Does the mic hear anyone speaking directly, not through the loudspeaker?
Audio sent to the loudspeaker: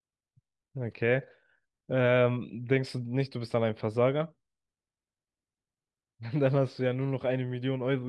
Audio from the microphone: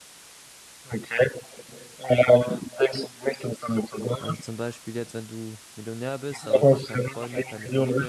Yes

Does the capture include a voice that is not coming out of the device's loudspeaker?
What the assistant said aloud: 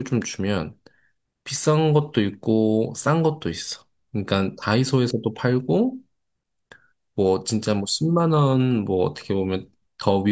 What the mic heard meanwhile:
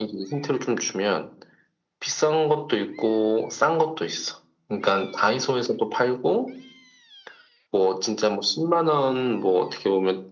No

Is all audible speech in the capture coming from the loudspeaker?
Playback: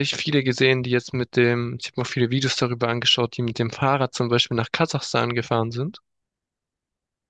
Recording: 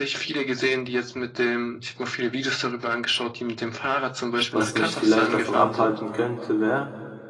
No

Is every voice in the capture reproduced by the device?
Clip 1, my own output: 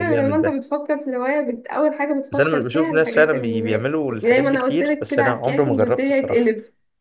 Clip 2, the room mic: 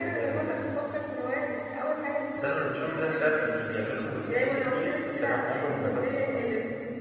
Yes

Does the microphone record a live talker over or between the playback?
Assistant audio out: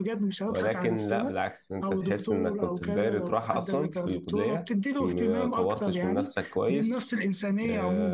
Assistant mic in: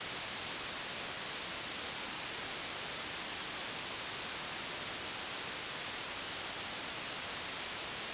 No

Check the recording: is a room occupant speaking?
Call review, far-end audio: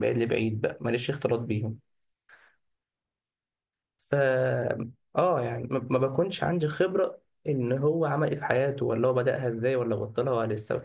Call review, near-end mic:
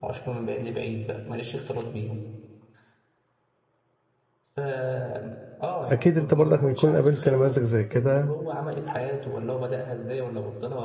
Yes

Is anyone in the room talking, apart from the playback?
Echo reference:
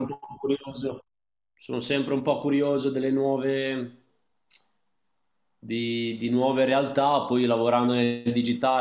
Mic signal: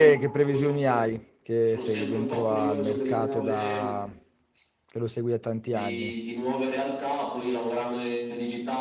Yes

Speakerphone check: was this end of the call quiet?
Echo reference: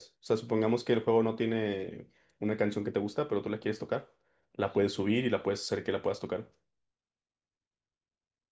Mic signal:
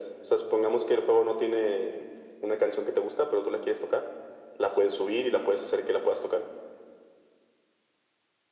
Yes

